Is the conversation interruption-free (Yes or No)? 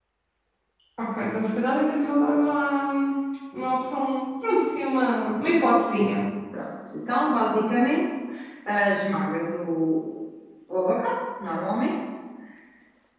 Yes